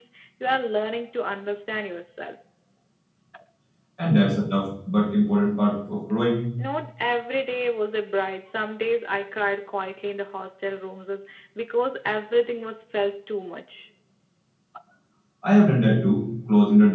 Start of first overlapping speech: none

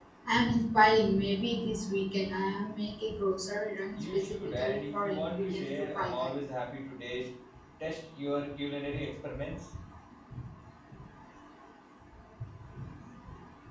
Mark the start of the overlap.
3.9 s

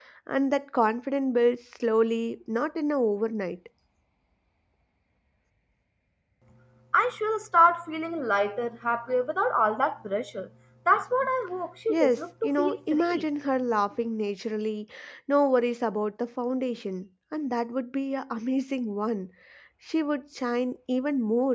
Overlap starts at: 11.9 s

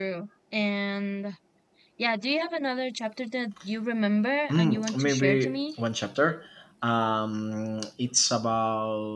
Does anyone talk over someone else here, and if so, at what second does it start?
4.5 s

